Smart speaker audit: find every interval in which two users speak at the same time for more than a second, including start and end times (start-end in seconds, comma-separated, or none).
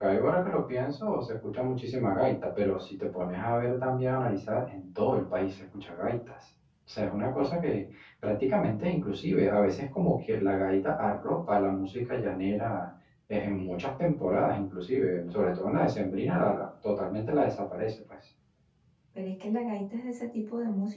none